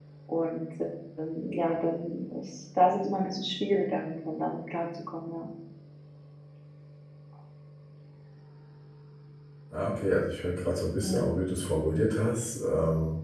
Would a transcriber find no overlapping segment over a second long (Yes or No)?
Yes